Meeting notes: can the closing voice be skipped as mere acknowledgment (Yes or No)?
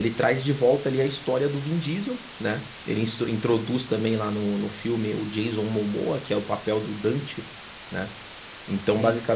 Yes